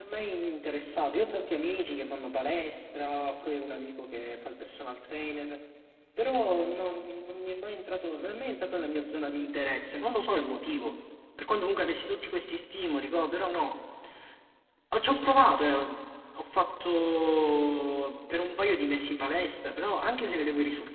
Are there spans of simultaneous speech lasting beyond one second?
No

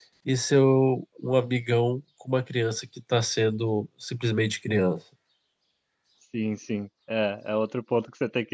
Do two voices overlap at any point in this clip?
No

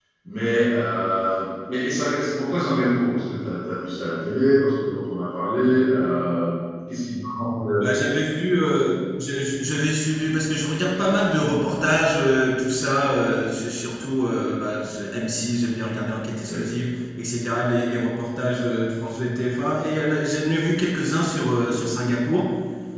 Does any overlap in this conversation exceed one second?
No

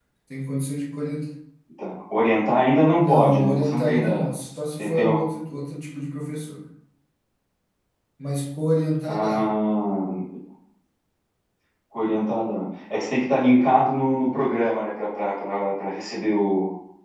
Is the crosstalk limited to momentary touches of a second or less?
No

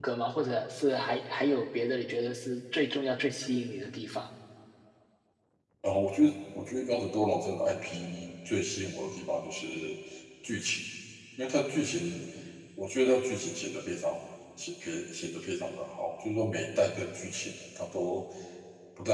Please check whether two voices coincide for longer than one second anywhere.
No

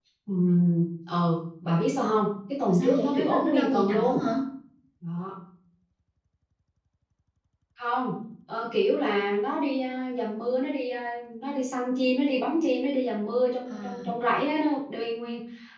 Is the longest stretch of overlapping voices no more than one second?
No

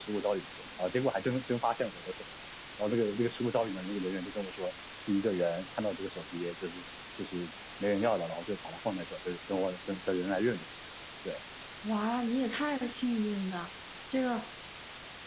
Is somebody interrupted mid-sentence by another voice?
No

